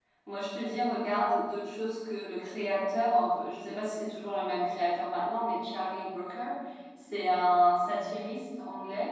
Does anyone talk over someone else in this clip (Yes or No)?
No